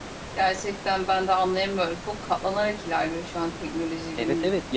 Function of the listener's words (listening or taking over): taking over